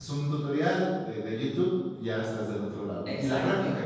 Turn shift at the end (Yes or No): Yes